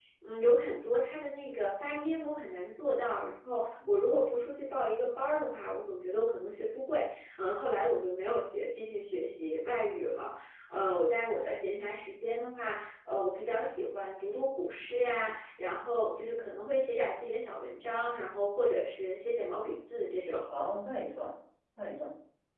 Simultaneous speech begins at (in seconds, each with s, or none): none